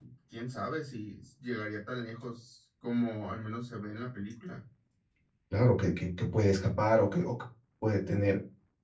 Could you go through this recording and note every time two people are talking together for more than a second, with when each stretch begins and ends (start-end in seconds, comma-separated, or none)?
none